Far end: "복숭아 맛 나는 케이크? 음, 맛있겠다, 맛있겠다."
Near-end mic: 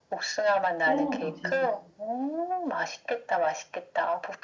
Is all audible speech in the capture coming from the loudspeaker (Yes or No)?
No